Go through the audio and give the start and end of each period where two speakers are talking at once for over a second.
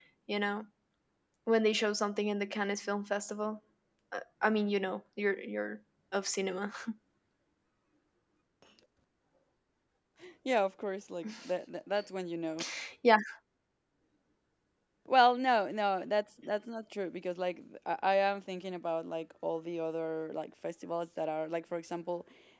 none

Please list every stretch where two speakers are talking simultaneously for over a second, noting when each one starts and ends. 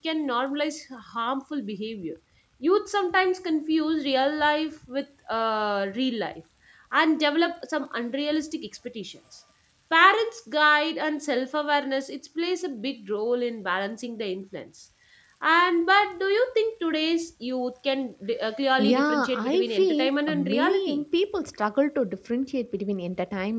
18.8-21.0

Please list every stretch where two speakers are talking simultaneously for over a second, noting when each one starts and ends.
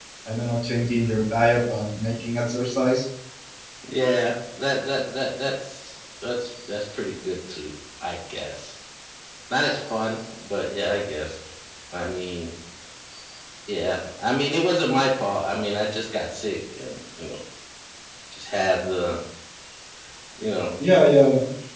none

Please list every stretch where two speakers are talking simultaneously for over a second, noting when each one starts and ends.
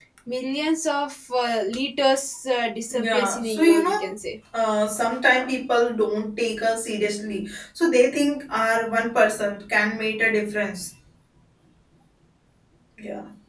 2.9-4.1

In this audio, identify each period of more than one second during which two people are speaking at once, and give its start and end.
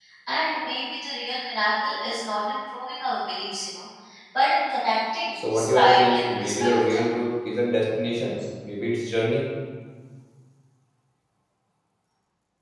5.5-7.1

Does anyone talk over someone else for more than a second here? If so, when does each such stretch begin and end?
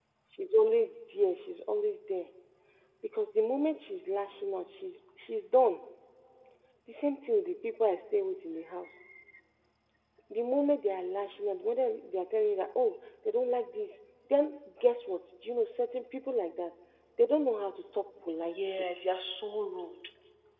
none

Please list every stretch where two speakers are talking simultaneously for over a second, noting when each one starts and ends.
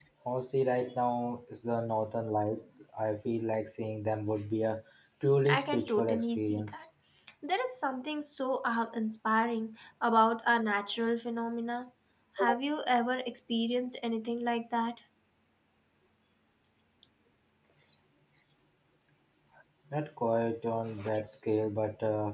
5.5-6.8

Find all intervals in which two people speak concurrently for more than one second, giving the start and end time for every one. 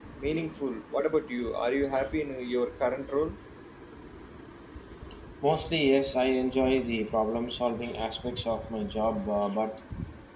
none

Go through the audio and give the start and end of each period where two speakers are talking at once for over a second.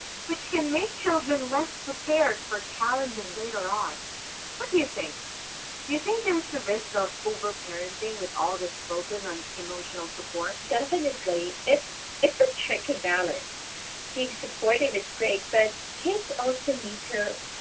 none

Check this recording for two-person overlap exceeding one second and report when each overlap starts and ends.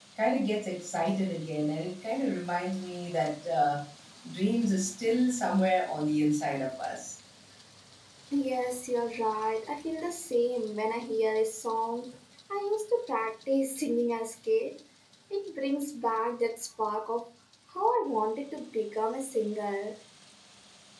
none

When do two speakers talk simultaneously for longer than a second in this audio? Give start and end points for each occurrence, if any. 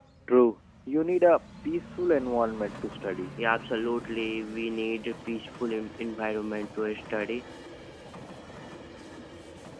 none

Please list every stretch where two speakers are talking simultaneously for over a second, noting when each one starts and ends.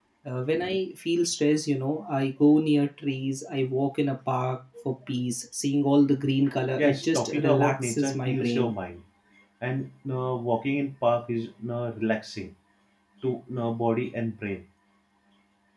6.8-8.7

